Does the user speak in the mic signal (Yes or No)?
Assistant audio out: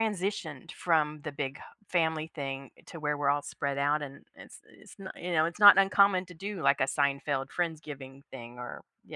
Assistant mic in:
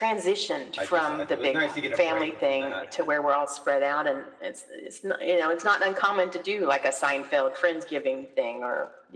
Yes